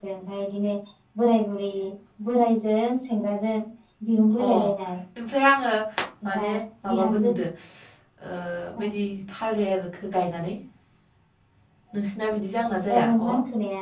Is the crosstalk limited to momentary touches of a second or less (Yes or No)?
Yes